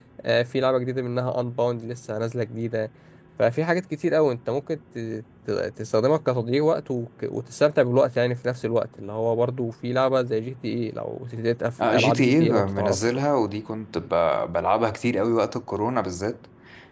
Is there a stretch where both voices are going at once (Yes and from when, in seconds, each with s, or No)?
Yes, from 11.8 s